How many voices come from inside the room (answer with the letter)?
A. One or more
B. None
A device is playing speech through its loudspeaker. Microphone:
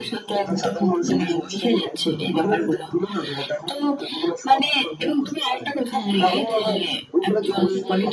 A